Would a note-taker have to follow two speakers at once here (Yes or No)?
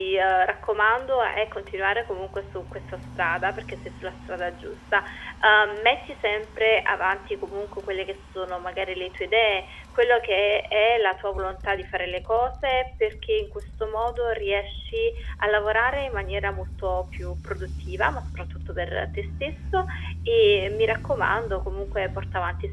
No